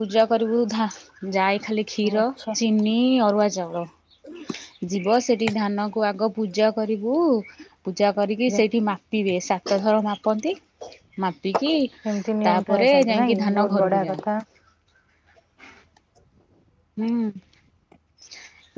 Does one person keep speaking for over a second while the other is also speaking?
Yes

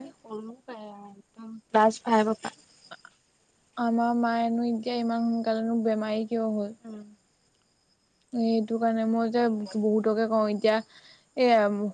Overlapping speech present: No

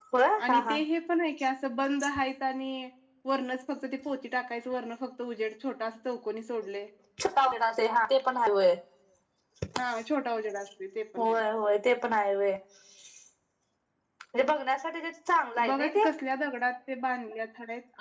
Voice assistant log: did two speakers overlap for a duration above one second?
No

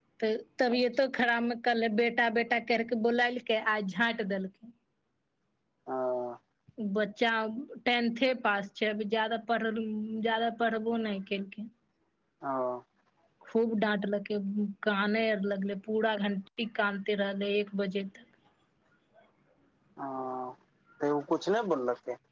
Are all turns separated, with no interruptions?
Yes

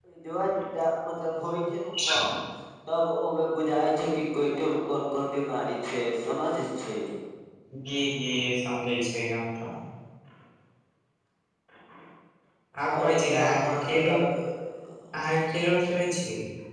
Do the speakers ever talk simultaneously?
Yes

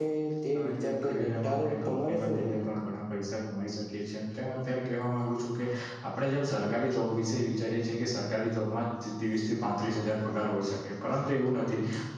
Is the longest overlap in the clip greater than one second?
Yes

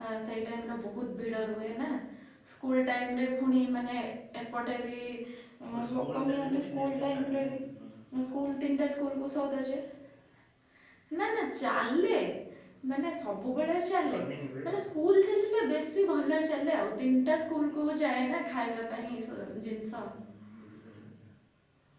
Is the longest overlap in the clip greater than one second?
Yes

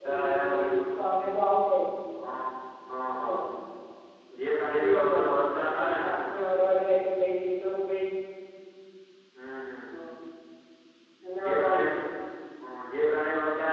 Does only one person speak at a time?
No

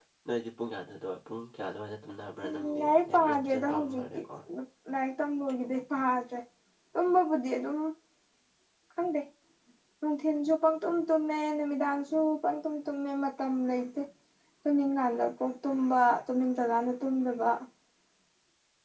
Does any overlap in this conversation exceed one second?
Yes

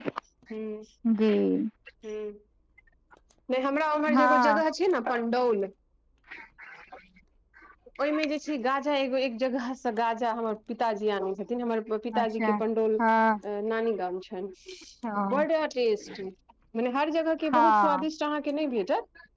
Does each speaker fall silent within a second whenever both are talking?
Yes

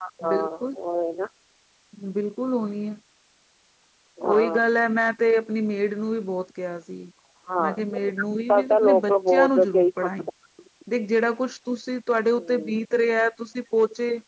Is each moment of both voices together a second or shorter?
No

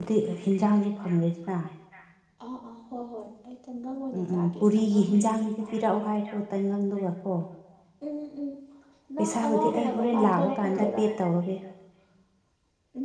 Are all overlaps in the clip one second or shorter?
No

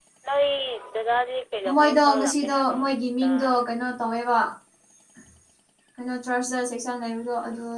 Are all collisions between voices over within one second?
No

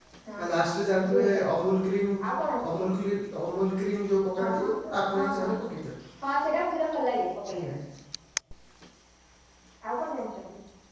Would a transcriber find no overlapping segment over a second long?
Yes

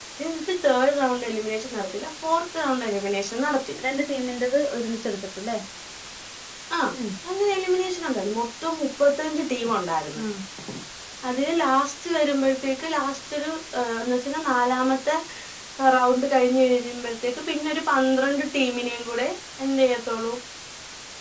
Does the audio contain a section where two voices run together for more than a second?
No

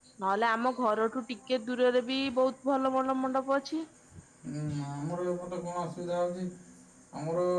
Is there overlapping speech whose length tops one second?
No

